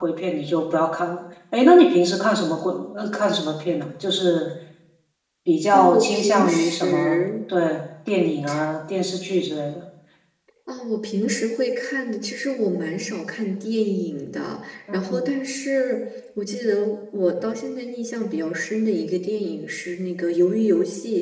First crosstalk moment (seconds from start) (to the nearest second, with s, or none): 6 s